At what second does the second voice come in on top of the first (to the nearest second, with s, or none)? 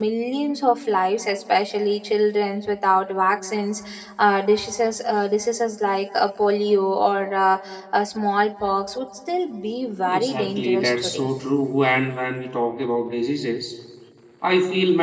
10 s